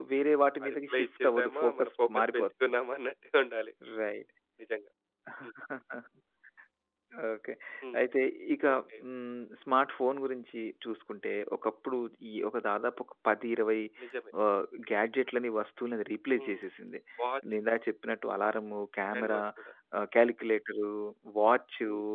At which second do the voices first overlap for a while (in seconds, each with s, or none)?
0.6 s